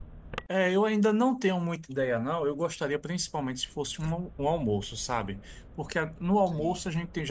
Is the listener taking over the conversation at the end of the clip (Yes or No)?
No